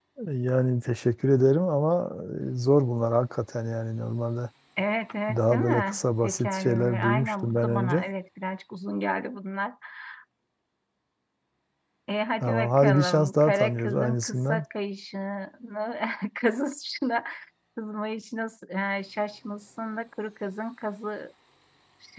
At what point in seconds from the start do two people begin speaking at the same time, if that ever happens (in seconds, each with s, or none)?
5.3 s